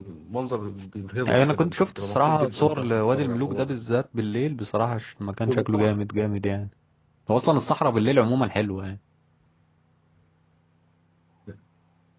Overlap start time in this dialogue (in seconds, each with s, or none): 1.3 s